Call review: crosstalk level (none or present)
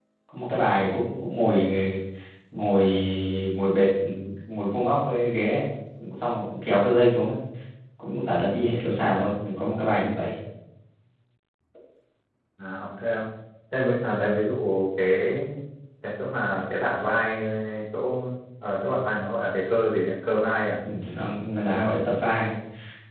none